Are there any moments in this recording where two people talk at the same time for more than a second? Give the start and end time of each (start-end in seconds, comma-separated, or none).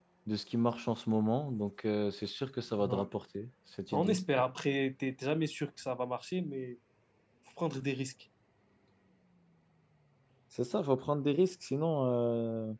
none